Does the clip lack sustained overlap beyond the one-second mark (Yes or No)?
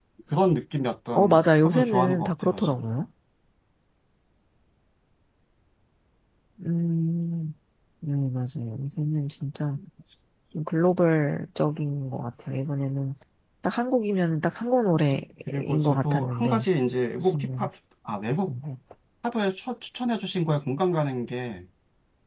No